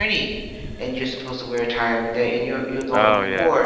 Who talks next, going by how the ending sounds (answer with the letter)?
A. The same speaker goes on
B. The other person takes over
A